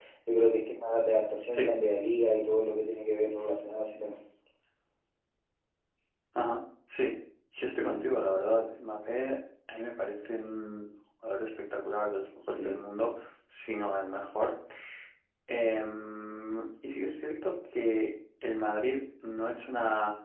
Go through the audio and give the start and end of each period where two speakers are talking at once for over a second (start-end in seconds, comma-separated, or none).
none